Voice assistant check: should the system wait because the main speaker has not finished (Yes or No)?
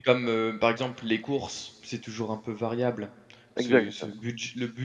Yes